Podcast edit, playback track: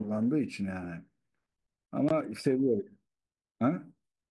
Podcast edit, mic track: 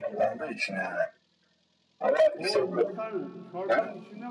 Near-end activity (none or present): present